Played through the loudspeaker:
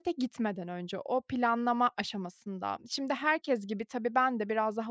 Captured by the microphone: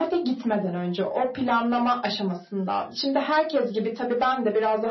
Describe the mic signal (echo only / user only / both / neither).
echo only